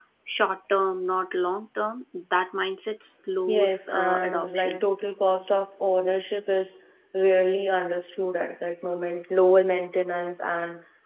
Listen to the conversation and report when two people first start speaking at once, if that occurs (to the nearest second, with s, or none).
3 s